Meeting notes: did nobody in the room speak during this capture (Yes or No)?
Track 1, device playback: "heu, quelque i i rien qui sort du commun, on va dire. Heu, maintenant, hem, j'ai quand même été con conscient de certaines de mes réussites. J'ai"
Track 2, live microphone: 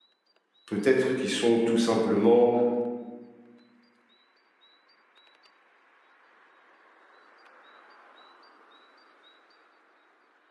No